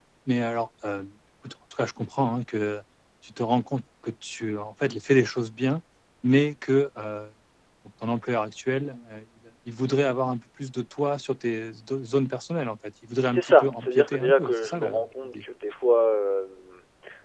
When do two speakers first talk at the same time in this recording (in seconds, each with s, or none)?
13.3 s